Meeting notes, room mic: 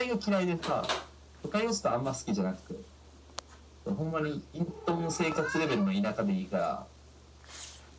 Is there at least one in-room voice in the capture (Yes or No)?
No